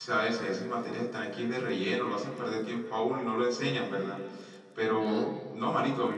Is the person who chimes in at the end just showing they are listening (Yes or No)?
Yes